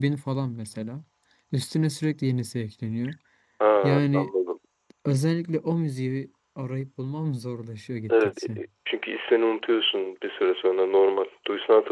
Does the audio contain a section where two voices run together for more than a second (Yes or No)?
No